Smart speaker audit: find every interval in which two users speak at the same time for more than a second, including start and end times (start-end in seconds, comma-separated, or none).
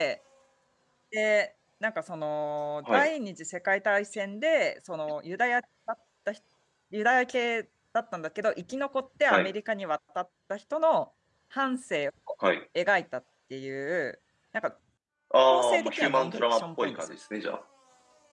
15.5-17.1